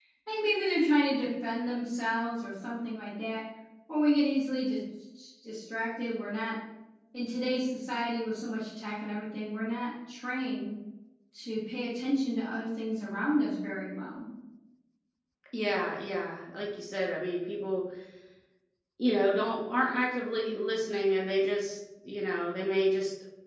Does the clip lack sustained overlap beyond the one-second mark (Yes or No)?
Yes